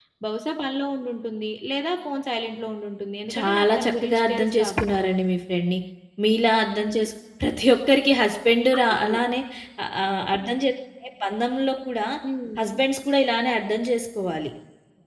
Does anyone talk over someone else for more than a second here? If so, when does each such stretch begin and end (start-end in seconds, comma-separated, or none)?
3.3-4.9